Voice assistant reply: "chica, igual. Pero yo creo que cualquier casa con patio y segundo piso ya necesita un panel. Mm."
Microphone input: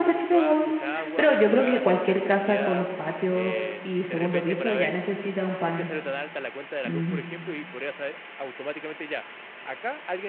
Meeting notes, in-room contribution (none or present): present